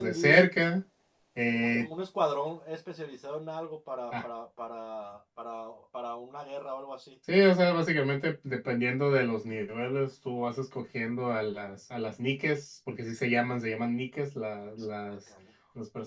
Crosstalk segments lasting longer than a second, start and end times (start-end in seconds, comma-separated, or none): none